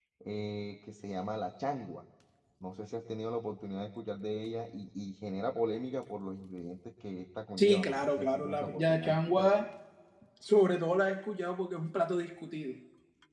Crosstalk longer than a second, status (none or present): present